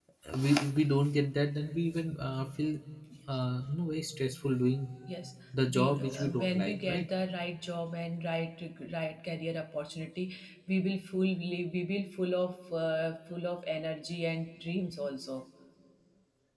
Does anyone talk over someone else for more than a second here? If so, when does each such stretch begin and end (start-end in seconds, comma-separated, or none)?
5.7-7.0